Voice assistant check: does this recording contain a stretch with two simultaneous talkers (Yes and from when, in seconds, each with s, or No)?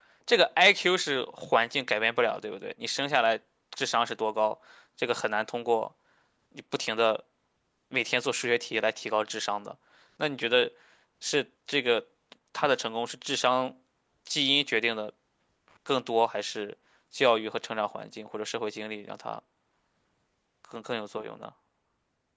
No